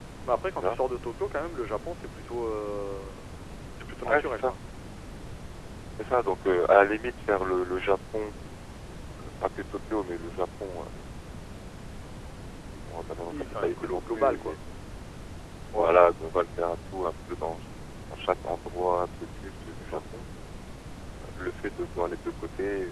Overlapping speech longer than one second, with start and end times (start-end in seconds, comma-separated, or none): 13.3-14.6